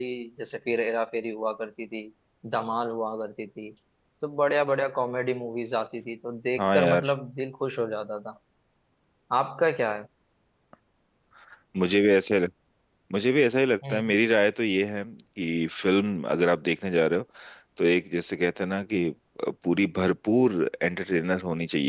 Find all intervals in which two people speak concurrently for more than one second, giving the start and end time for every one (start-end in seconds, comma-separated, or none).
none